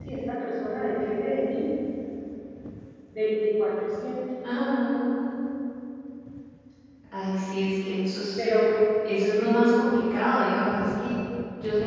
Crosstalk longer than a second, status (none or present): none